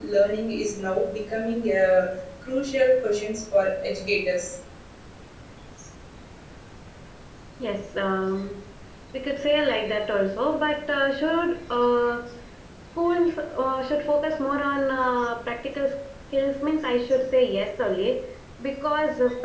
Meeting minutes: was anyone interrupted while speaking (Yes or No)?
No